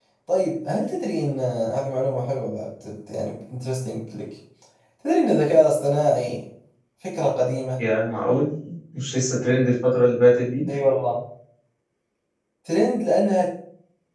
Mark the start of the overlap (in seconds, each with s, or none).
none